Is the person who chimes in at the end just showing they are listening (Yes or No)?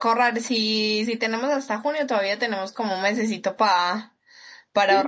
No